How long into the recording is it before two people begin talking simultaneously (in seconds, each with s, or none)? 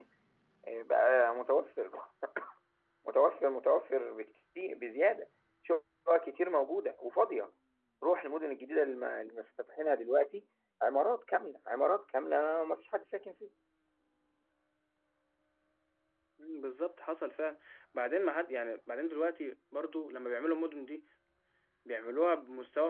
none